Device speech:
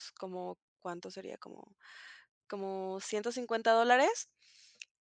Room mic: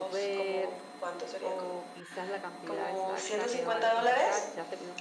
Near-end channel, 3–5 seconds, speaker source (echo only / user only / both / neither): both